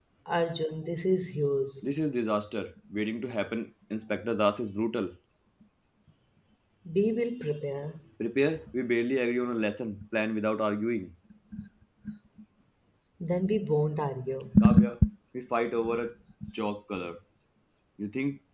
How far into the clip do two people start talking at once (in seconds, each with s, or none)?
none